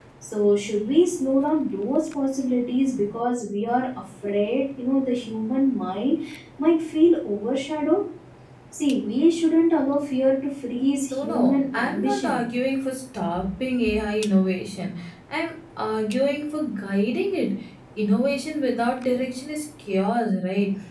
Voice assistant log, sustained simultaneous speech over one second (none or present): present